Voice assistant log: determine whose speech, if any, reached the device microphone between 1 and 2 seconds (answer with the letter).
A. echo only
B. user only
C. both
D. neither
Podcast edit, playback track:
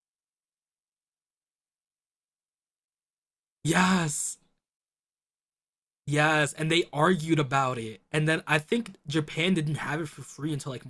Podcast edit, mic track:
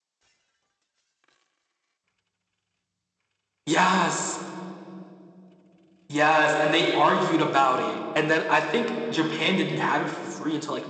D